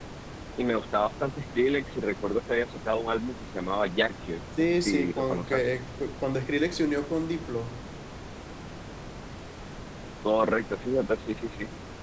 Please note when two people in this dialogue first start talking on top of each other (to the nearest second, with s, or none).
5 s